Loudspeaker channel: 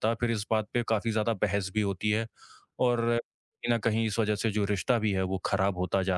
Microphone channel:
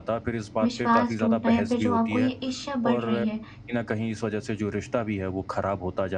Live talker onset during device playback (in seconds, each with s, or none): 0.6 s